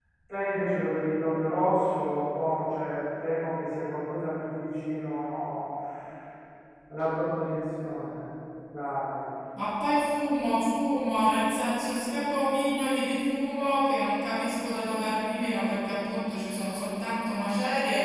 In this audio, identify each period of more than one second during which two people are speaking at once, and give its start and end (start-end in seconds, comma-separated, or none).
none